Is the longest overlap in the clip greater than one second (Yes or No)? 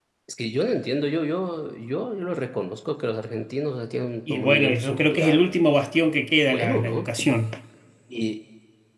Yes